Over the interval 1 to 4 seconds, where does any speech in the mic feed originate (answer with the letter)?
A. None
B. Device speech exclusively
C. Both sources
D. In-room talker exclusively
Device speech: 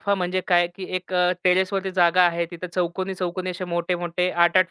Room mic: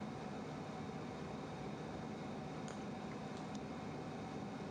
A